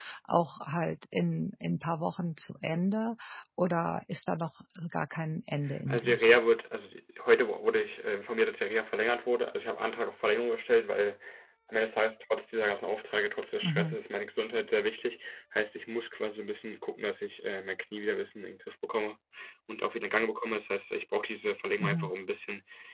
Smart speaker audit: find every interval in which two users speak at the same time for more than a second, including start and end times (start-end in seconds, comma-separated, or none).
none